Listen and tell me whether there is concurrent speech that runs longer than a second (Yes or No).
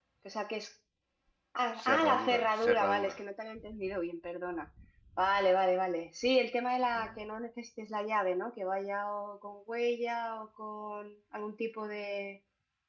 Yes